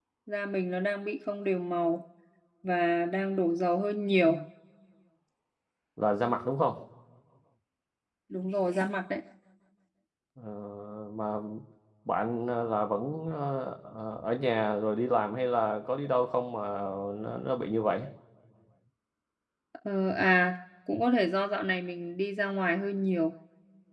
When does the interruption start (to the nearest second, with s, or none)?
none